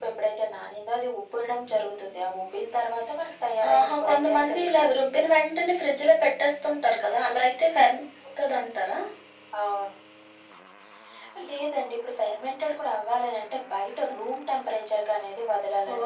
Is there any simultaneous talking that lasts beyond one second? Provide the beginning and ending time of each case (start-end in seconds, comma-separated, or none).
3.7-5.0